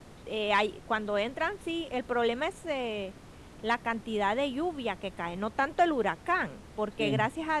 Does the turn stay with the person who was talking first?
Yes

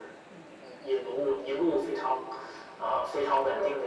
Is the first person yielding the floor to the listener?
No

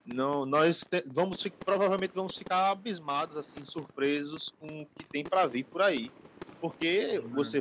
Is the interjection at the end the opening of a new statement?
No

